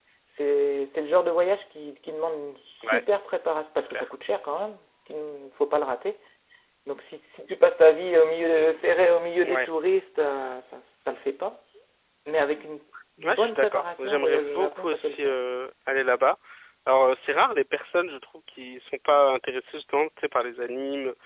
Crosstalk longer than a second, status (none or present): present